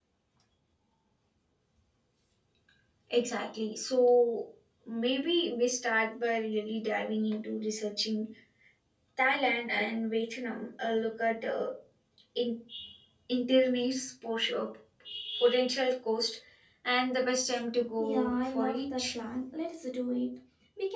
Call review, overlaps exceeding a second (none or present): present